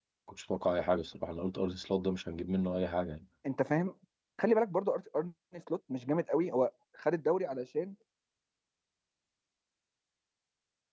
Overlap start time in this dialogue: none

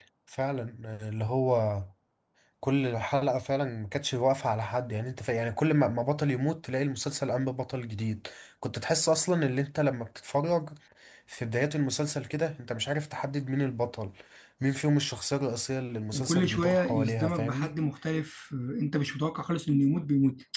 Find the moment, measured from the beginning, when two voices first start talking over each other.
16 s

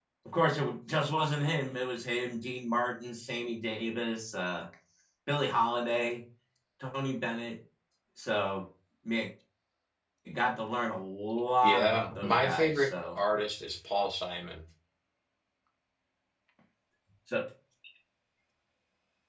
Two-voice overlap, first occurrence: 12 s

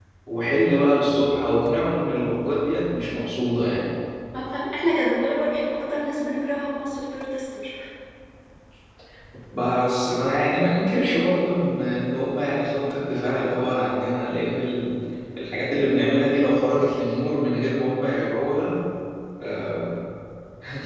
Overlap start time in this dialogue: none

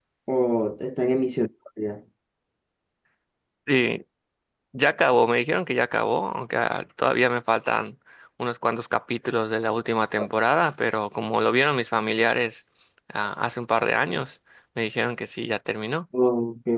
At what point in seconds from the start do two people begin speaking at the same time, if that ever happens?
none

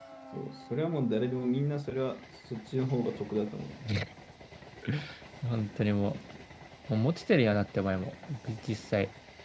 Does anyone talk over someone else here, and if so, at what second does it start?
none

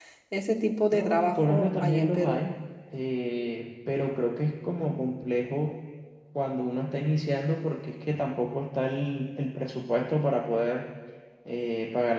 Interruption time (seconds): 1 s

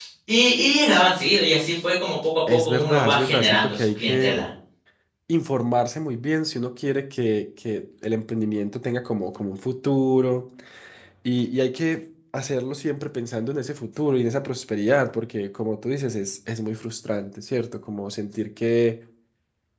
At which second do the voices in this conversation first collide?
2 s

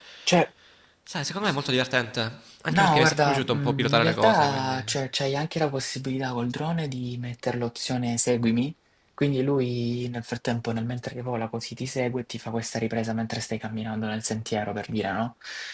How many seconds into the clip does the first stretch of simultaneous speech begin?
3 s

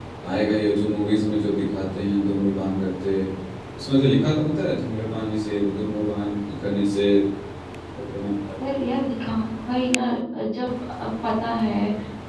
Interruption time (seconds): none

